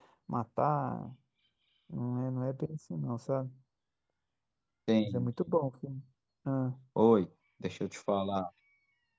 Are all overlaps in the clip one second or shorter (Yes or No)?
Yes